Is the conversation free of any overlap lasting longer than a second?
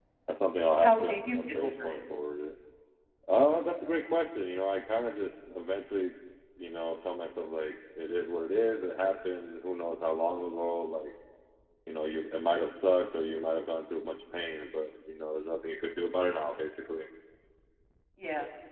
No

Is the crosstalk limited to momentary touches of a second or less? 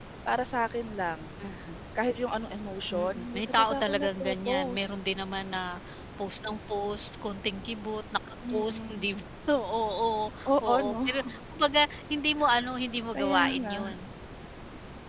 No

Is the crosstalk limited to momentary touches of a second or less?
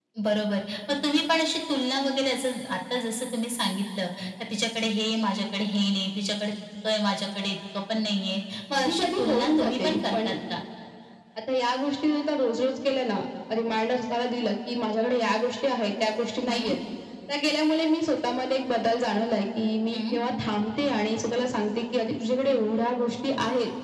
No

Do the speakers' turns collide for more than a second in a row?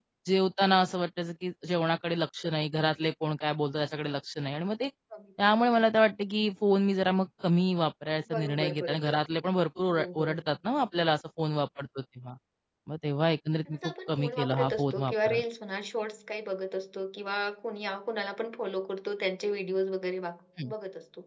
Yes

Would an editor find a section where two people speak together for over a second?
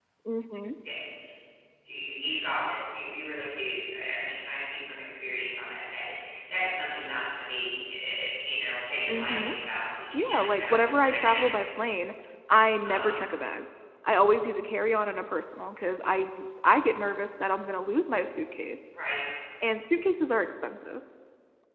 Yes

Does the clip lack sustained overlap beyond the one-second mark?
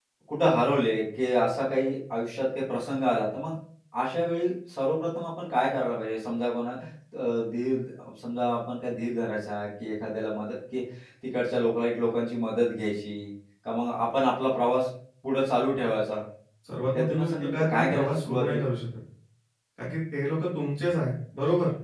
No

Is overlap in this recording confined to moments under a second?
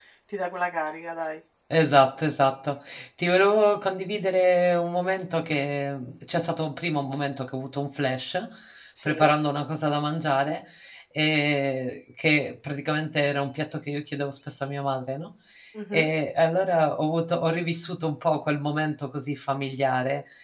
Yes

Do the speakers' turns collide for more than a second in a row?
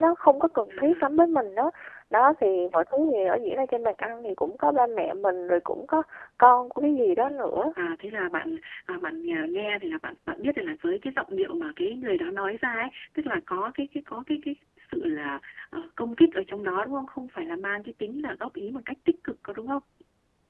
No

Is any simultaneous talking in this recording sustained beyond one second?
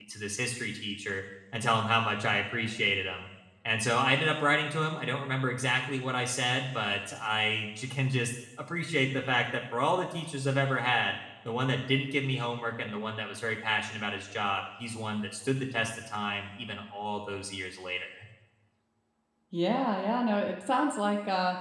No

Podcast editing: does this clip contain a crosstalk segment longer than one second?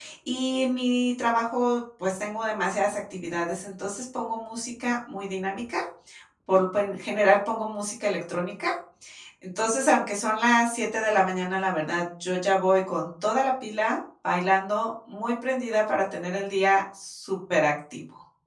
No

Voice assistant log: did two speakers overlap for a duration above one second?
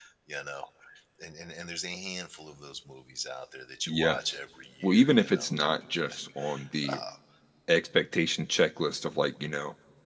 Yes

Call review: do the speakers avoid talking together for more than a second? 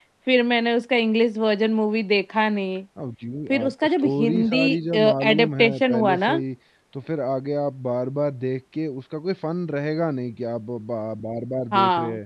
No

